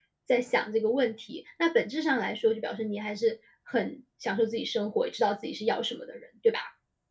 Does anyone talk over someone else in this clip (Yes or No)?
No